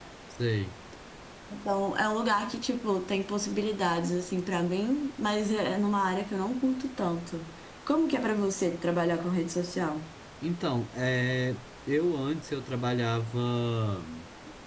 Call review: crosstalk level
none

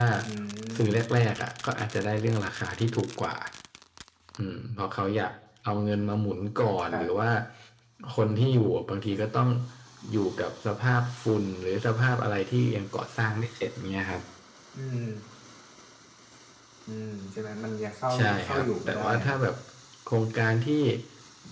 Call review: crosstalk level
present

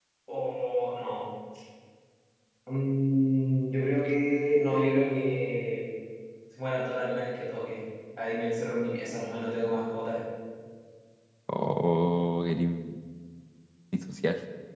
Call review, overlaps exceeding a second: none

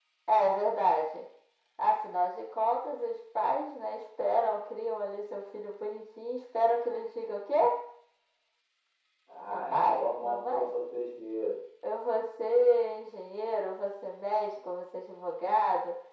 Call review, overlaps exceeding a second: present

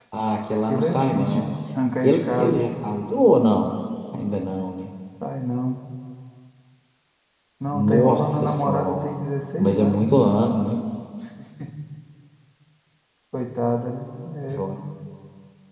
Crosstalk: present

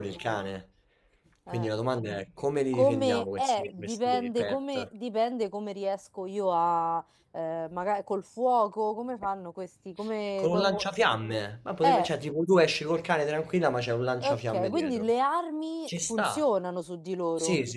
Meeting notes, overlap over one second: present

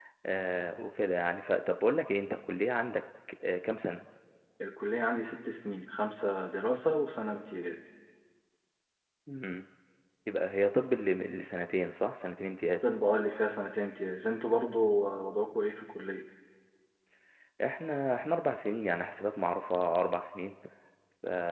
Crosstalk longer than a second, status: none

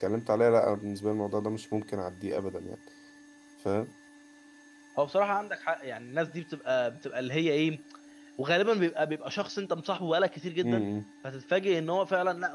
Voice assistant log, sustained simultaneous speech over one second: none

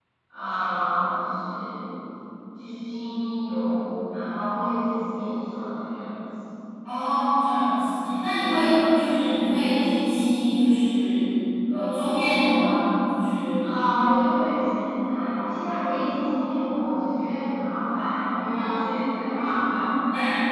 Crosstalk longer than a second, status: none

